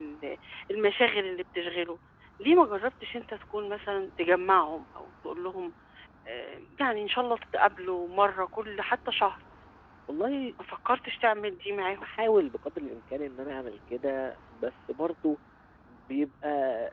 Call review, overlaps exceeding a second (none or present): none